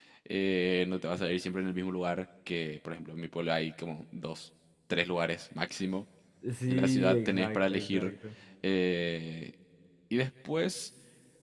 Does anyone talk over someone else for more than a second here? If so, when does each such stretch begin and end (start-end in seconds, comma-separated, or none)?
6.7-8.1